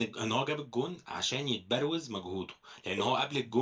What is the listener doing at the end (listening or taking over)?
listening